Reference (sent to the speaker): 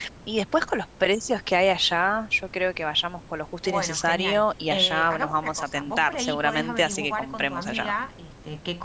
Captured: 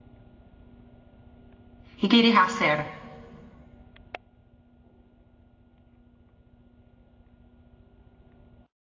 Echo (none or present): none